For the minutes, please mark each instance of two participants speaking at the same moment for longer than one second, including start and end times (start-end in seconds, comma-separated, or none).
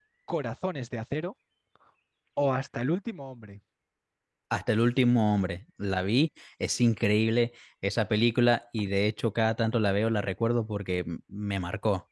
none